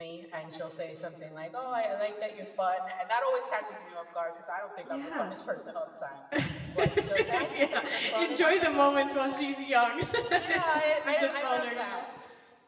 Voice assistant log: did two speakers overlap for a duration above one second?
Yes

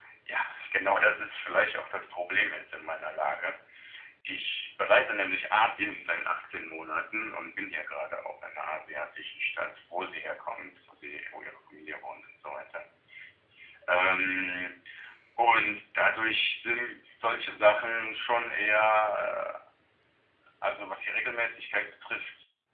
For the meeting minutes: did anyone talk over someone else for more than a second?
No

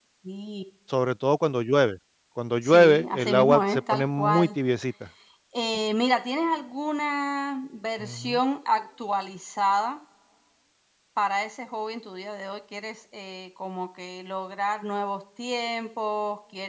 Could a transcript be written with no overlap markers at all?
No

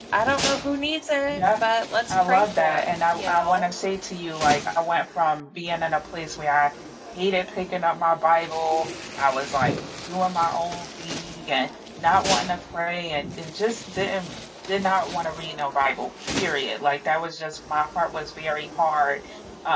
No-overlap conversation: No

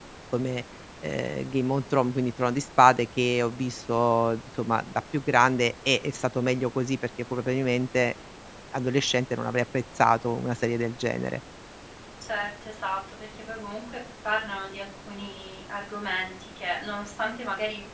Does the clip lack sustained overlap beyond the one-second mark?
Yes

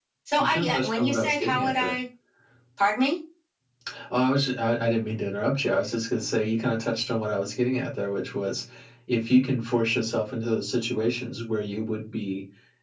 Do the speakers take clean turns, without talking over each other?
No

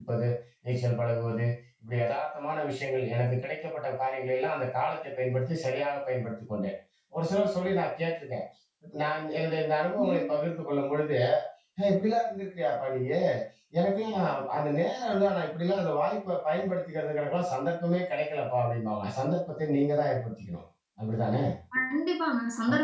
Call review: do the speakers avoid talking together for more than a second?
Yes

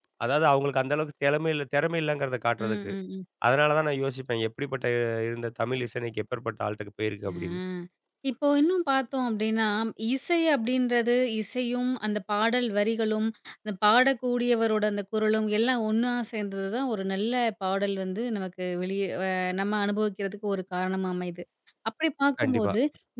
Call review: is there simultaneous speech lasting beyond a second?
No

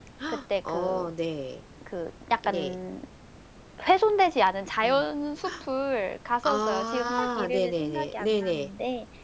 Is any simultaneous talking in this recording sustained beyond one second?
Yes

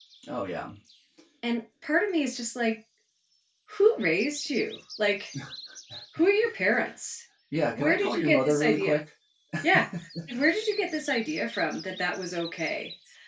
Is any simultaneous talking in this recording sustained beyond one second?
Yes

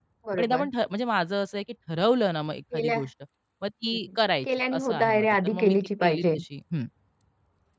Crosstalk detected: Yes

